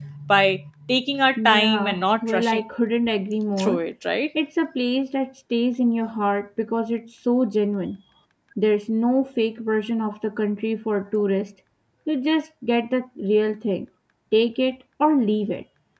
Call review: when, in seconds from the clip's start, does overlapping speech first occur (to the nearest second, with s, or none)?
1 s